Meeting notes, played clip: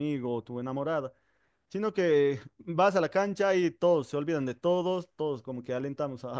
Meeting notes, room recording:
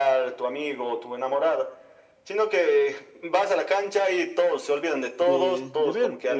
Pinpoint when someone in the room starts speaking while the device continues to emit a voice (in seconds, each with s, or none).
5.2 s